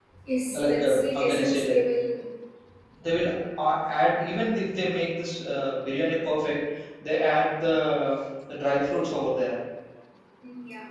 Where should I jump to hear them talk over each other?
0.5 s

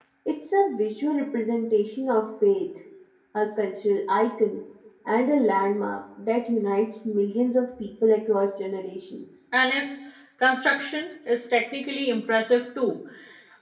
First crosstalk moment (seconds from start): none

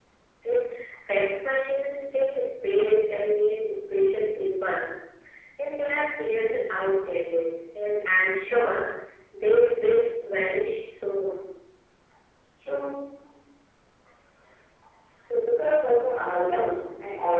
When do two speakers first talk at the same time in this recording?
none

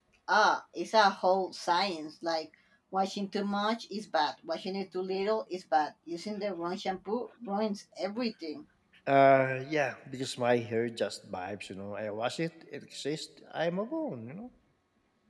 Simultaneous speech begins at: none

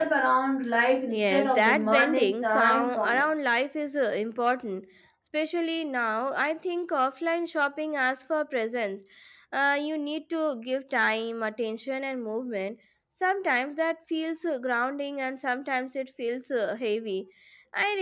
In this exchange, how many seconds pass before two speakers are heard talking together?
1.1 s

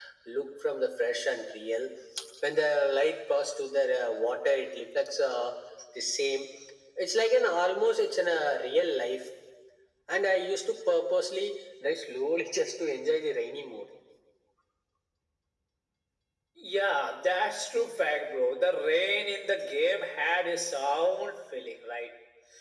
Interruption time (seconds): none

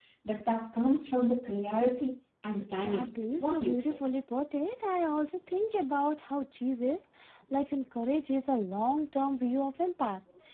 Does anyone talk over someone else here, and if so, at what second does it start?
2.7 s

